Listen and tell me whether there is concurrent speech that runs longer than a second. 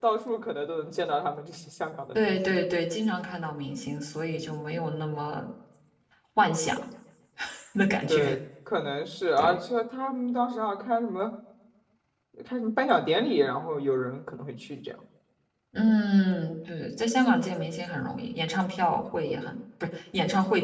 No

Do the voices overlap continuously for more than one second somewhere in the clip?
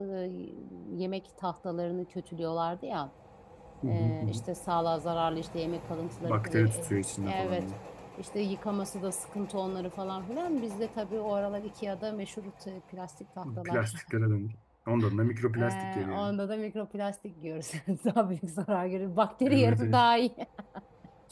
Yes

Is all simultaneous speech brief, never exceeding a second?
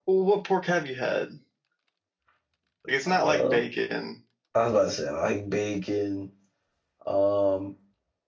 Yes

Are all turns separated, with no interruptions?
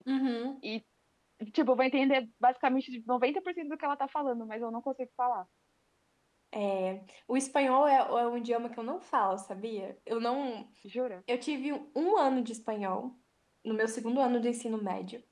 Yes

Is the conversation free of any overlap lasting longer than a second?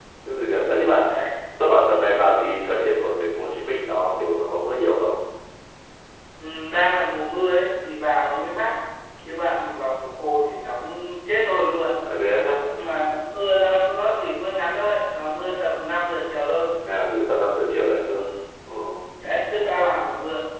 Yes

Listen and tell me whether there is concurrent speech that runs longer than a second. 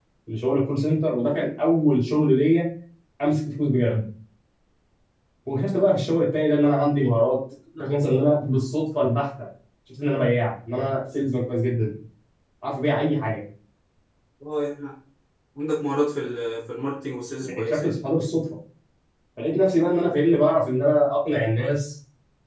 No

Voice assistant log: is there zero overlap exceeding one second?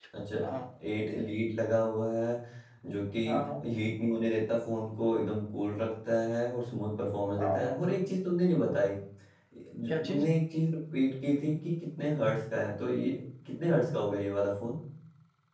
Yes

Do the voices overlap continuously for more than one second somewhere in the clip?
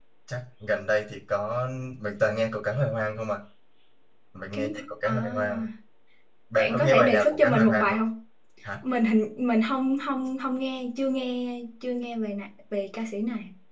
Yes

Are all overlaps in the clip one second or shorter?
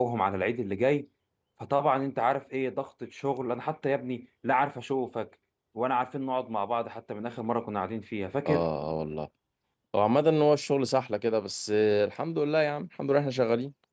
Yes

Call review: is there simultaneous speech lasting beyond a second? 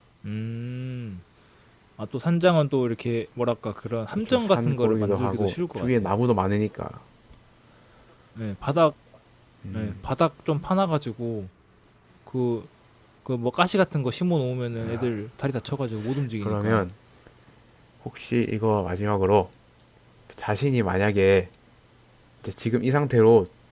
Yes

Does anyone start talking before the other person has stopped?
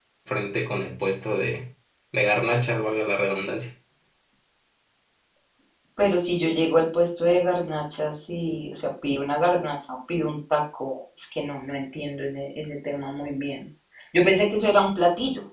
No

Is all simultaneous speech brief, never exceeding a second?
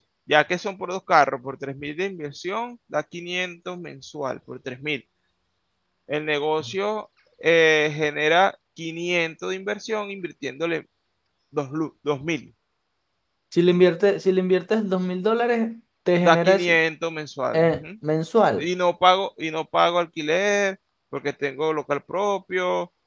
Yes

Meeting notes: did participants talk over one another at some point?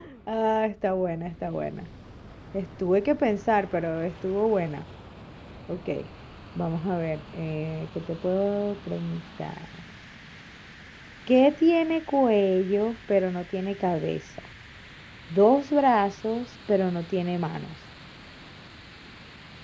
No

